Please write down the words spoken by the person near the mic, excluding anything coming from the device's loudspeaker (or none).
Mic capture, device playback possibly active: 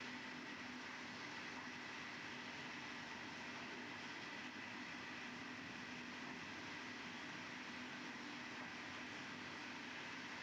none